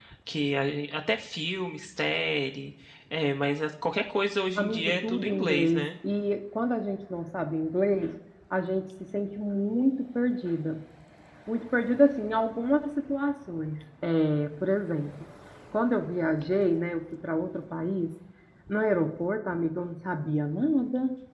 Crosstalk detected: Yes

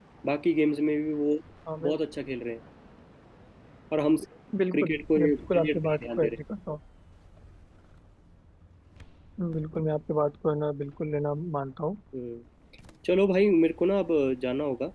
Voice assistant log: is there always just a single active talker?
No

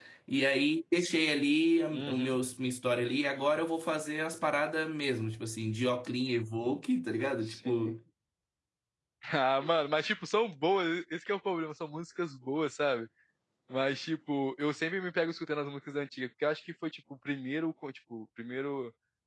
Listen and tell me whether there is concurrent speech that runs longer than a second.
No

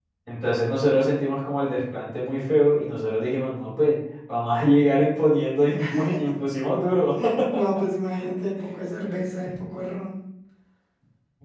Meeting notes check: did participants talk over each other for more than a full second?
No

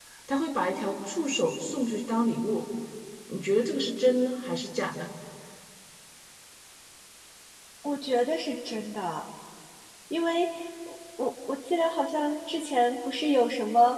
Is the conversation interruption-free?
Yes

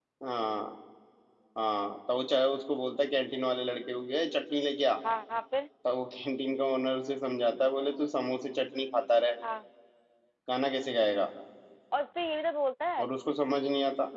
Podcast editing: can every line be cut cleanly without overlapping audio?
Yes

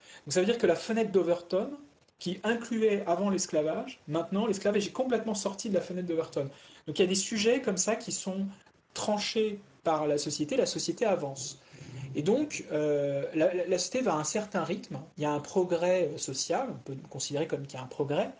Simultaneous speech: No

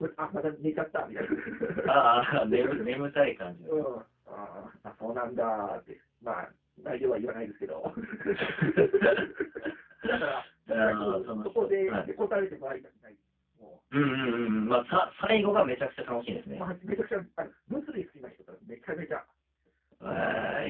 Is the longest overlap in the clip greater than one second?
Yes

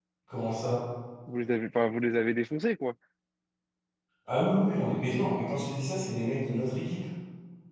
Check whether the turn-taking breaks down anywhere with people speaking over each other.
No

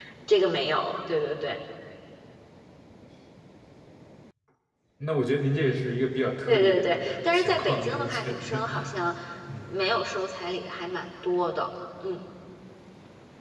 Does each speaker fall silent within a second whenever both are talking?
No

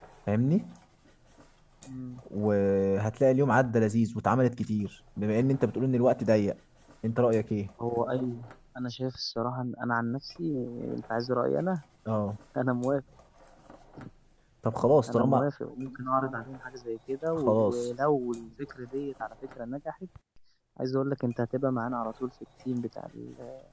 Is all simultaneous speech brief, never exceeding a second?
Yes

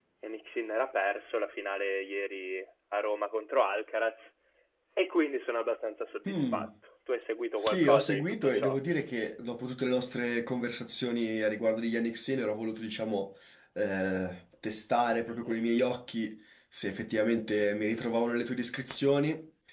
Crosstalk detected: Yes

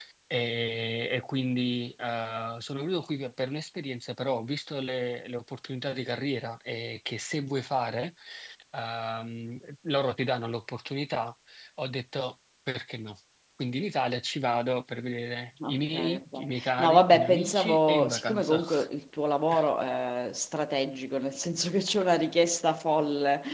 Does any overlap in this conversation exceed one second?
Yes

